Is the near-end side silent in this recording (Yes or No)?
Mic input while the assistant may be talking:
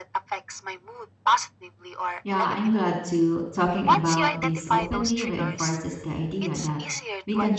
No